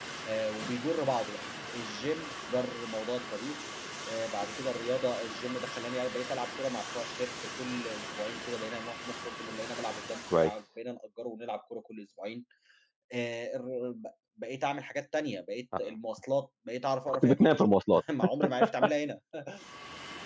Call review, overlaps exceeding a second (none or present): none